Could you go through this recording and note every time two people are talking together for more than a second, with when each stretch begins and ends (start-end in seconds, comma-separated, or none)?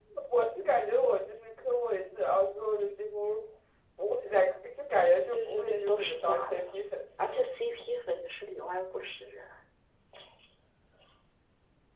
5.3-6.7